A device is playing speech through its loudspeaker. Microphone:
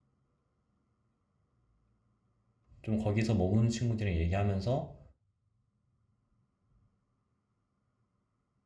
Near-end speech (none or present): present